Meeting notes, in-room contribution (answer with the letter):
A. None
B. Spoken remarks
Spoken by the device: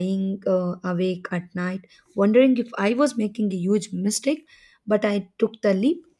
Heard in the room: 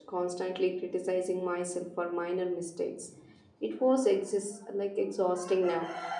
B